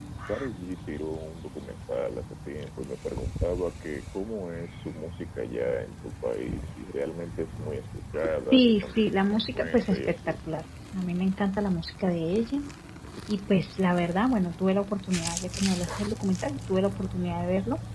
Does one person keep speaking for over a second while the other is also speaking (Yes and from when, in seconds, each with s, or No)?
Yes, from 8.5 s